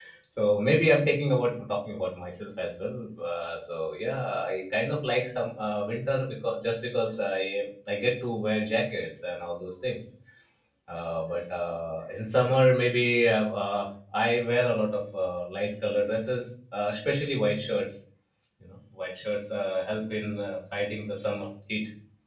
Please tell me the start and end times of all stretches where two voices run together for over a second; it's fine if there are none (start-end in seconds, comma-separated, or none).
none